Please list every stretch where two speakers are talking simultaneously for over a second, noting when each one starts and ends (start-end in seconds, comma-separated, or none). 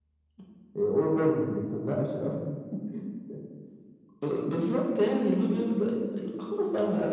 none